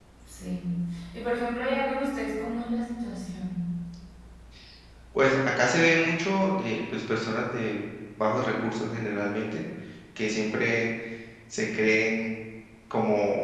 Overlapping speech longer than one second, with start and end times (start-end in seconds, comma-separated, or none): none